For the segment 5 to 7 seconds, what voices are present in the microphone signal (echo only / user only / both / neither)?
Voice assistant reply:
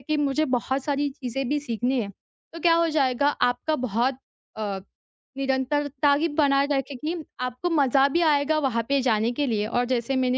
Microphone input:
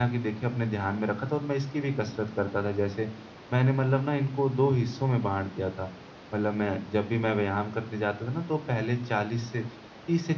user only